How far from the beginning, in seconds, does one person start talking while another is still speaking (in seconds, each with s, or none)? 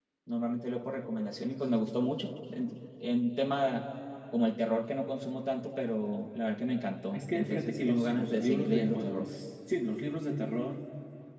7.1 s